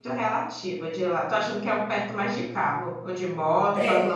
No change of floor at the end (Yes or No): No